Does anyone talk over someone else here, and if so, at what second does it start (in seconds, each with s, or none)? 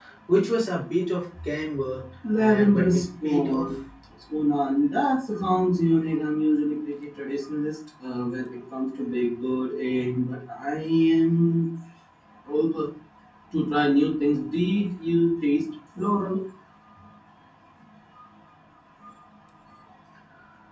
2.4 s